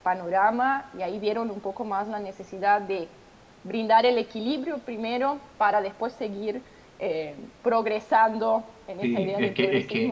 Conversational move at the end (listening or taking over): taking over